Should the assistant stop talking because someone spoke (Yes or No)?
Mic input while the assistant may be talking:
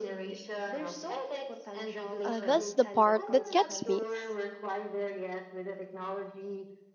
Yes